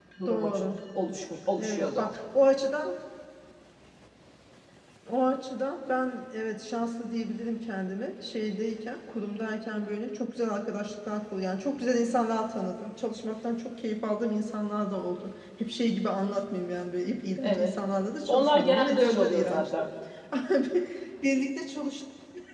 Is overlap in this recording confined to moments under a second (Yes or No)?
No